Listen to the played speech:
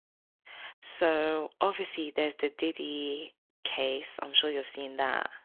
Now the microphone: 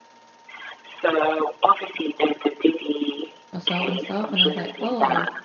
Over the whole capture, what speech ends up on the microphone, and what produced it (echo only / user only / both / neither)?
both